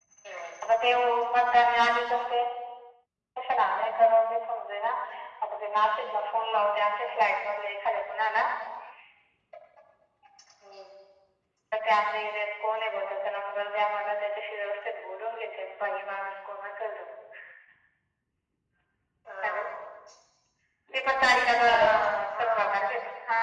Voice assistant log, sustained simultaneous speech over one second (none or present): none